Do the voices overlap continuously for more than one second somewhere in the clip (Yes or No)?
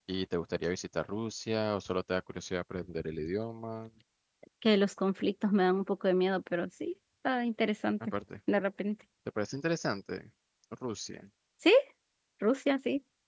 No